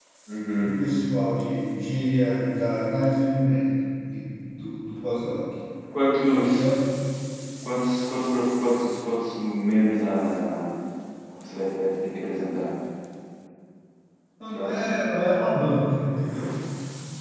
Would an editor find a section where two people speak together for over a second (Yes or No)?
No